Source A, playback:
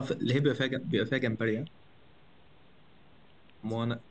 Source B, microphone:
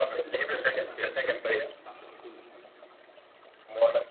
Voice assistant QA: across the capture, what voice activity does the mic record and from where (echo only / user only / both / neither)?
both